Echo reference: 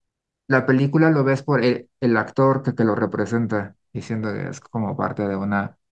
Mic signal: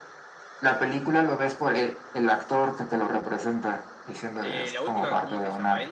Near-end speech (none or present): present